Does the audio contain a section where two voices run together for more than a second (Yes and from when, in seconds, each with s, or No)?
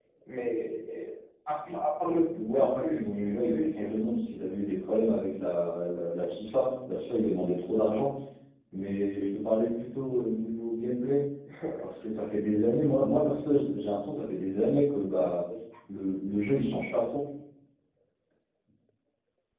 Yes, from 2.3 s